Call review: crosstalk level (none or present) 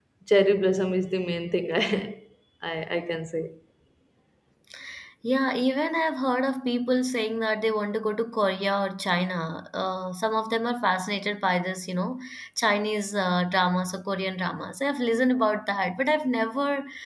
none